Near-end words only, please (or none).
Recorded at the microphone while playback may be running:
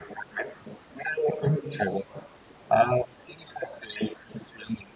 none